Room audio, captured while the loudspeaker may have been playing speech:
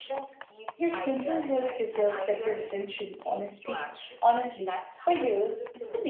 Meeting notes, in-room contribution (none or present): present